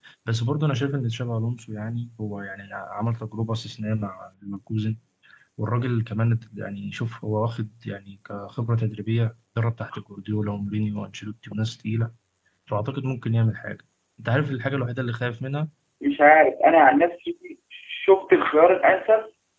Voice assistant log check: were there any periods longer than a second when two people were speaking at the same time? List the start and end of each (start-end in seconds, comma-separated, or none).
none